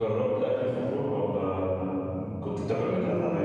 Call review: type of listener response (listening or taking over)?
taking over